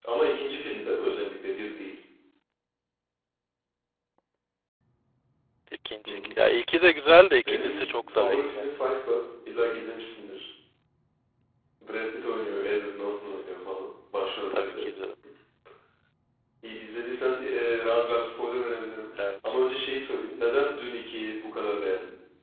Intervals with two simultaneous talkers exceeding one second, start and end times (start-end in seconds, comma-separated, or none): 7.5-8.7